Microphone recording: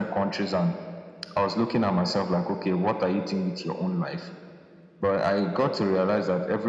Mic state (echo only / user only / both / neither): echo only